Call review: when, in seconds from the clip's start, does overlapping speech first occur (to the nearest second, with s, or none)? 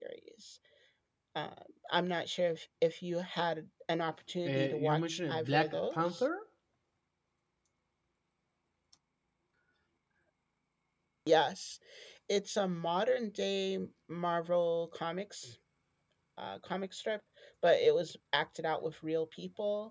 4 s